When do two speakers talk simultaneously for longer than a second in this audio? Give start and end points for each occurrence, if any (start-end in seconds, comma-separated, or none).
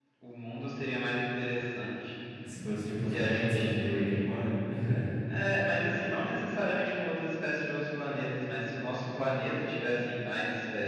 3.1-4.3